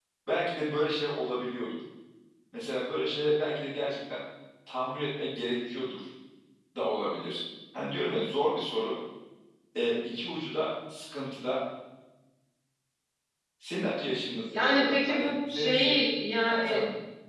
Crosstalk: present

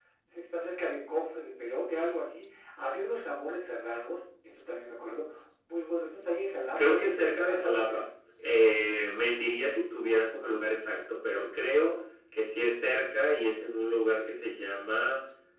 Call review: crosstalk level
present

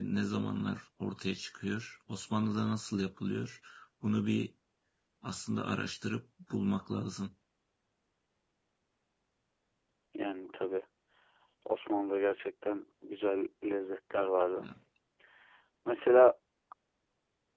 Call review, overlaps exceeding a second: none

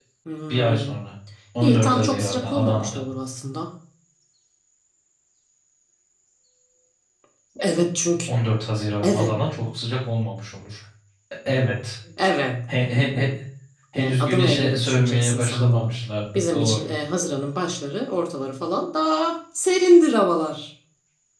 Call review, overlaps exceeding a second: present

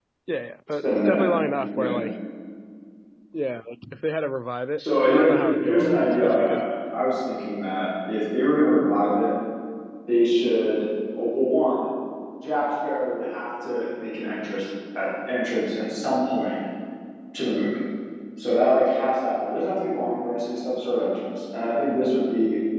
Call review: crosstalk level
present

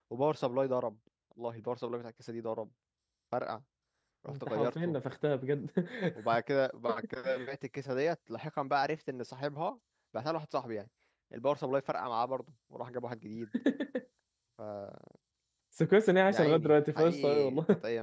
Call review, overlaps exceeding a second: present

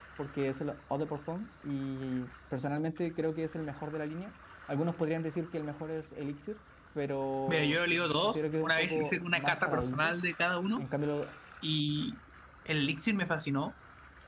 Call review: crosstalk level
present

